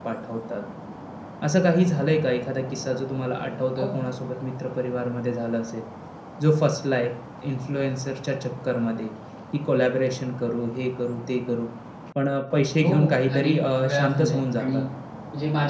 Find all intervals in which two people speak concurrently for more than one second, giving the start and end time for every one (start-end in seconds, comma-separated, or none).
12.8-14.8